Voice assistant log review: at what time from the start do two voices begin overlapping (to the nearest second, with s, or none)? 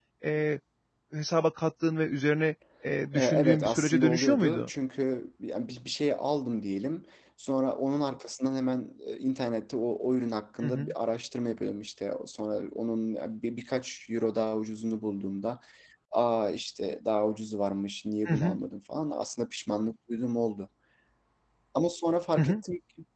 3 s